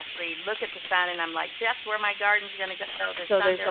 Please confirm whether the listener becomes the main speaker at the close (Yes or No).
Yes